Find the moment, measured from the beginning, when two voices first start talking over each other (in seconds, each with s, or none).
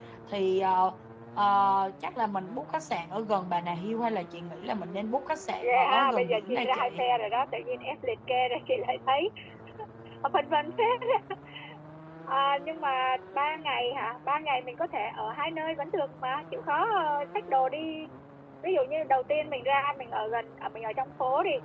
5.6 s